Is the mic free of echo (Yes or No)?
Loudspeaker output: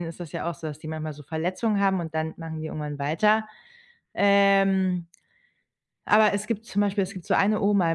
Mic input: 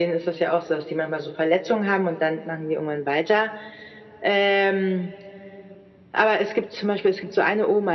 No